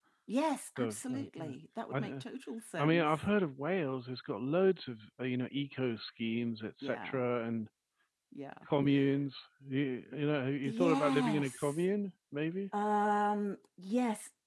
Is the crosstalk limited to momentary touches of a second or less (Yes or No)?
No